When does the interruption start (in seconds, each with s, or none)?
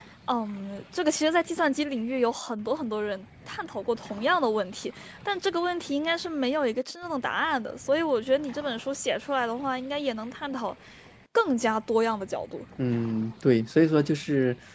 none